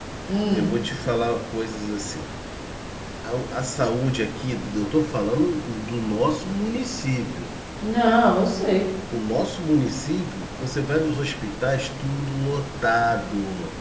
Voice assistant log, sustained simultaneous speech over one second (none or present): none